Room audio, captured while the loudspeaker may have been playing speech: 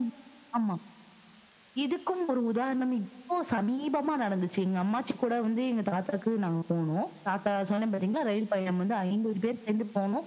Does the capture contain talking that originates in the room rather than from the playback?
No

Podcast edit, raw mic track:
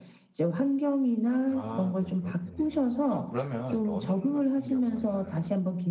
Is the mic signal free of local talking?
No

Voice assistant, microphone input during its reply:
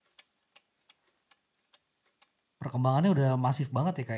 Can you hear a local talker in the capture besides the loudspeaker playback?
Yes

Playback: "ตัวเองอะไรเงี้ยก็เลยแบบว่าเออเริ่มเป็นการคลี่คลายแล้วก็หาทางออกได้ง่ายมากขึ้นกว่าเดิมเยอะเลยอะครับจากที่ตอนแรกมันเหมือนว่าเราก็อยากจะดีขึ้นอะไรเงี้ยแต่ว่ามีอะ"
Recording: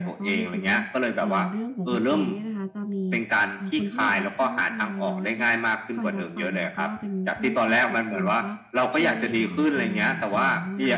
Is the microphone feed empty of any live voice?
No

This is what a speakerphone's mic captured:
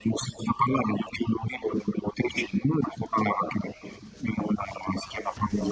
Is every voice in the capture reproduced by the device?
Yes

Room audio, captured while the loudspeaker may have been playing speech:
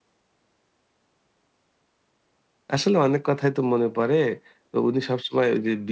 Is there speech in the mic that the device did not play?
Yes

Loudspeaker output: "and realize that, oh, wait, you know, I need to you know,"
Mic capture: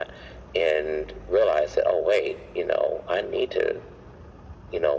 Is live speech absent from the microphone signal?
Yes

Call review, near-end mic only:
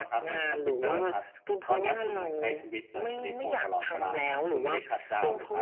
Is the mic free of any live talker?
No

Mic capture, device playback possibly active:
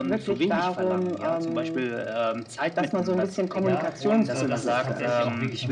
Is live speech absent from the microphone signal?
No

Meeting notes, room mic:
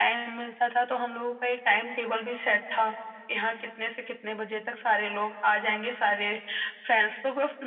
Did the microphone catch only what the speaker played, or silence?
Yes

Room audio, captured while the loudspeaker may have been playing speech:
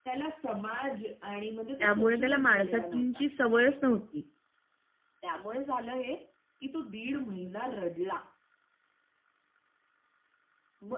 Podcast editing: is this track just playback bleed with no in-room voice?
No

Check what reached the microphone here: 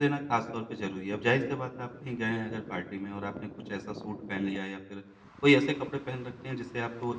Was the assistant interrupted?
Yes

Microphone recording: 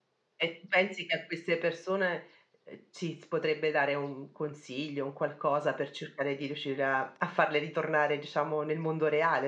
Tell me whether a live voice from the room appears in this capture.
Yes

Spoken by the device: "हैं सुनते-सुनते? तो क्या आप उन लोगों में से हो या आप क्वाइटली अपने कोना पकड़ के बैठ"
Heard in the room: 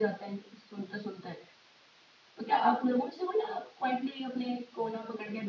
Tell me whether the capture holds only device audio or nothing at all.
Yes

